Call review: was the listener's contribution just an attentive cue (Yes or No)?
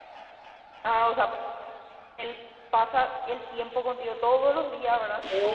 No